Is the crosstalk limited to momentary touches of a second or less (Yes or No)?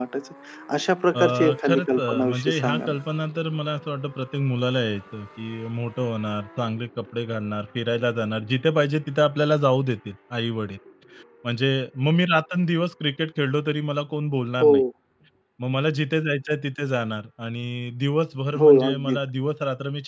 No